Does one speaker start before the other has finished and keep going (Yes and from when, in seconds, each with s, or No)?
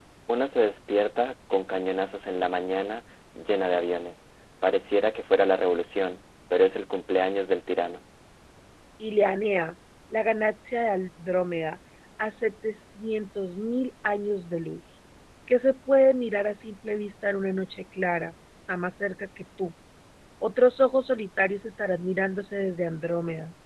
No